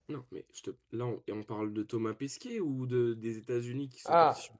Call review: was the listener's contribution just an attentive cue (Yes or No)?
No